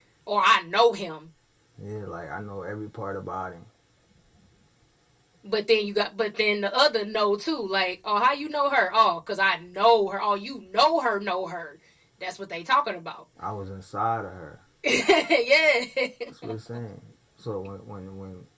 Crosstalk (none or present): none